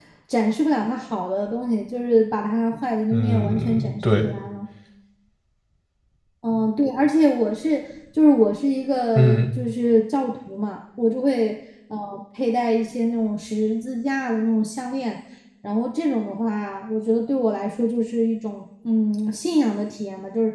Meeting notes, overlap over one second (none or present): present